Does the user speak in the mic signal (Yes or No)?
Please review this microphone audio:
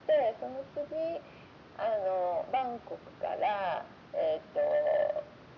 No